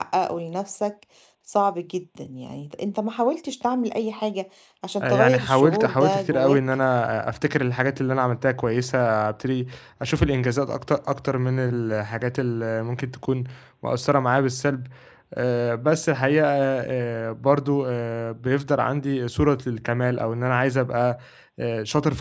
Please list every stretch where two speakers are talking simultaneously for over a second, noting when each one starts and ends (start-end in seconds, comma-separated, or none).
5.0-6.6